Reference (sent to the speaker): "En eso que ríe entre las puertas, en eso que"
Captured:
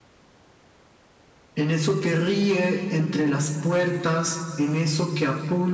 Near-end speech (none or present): none